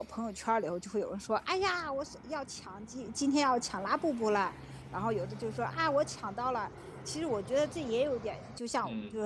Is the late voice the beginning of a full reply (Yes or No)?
No